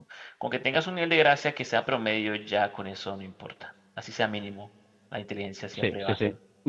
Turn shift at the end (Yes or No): Yes